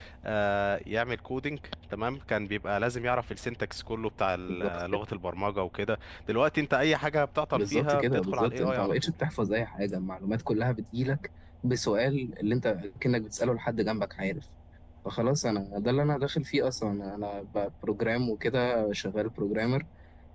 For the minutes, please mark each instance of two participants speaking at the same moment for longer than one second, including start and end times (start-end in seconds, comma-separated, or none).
7.5-9.1